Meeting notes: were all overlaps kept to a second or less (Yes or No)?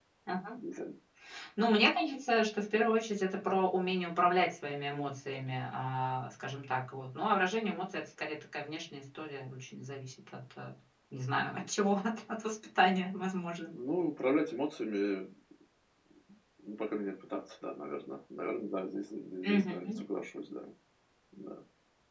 Yes